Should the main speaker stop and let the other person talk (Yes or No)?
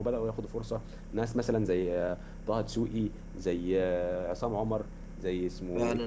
Yes